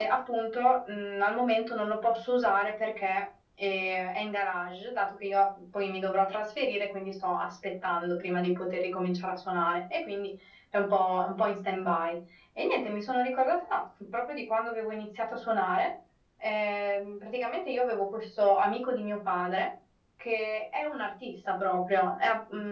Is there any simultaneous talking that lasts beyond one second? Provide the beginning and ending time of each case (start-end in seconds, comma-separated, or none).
none